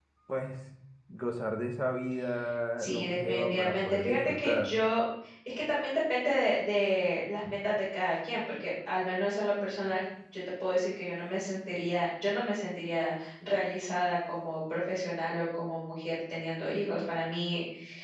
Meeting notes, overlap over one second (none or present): present